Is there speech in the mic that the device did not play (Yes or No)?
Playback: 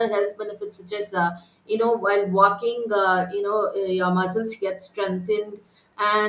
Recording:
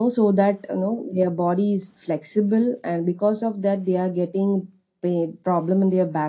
Yes